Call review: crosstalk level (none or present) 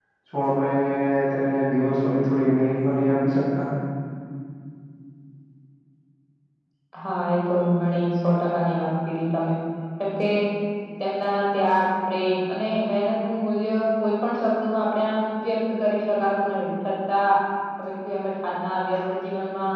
none